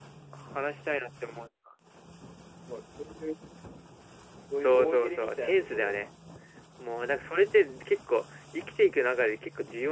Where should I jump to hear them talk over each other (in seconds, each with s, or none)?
4.6 s